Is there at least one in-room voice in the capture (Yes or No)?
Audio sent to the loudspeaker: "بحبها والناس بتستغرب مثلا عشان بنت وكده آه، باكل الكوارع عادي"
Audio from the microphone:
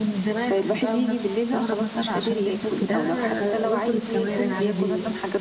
Yes